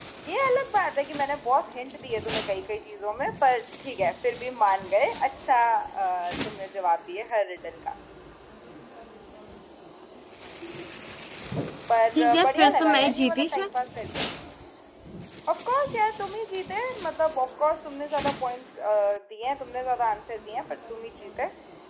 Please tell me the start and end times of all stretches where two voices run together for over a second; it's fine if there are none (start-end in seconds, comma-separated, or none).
12.2-13.7